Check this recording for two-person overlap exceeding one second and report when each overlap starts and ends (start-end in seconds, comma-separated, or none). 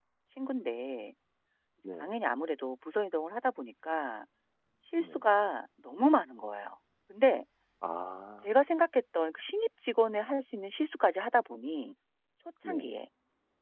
none